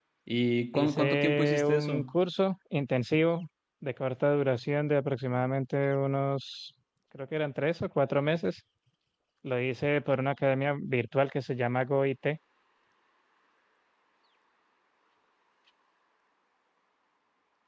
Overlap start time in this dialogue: 0.7 s

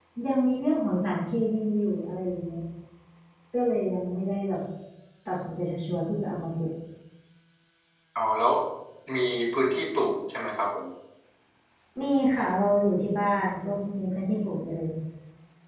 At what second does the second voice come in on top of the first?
none

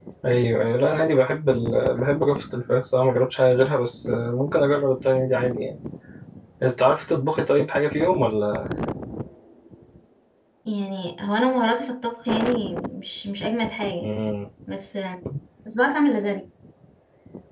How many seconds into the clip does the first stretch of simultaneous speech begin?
none

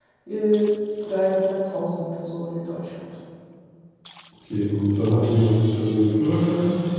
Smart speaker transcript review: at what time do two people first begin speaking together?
none

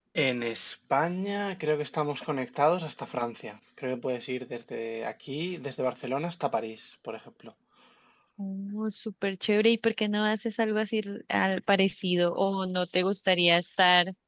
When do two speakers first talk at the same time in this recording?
none

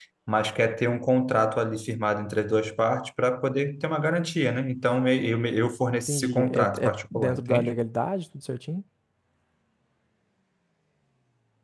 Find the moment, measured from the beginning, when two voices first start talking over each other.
6.1 s

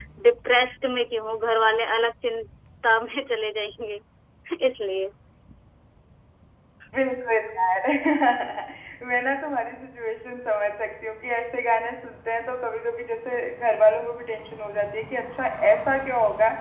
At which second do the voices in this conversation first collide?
none

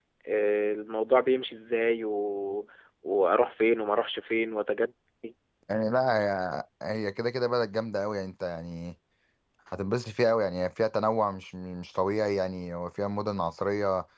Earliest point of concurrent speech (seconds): none

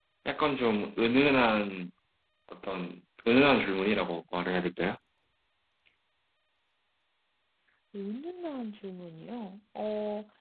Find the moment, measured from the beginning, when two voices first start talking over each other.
none

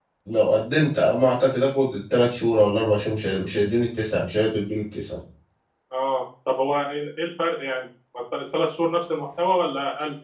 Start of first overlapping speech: none

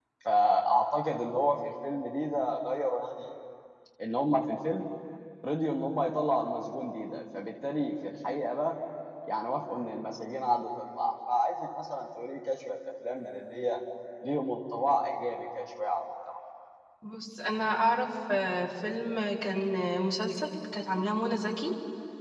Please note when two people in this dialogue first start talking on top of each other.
none

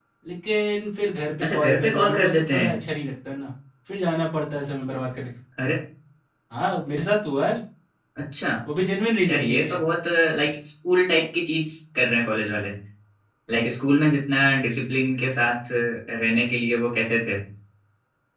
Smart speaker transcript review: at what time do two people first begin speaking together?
1.4 s

